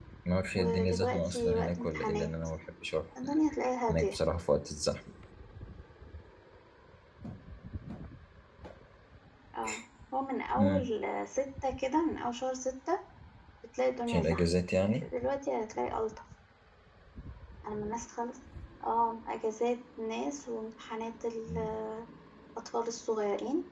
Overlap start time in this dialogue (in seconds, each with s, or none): 0.5 s